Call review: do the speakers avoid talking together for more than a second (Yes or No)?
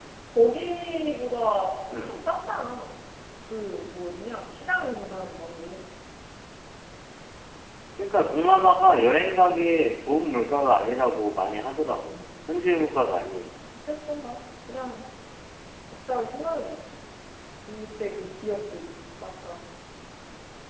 Yes